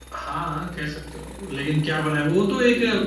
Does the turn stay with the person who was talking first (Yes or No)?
Yes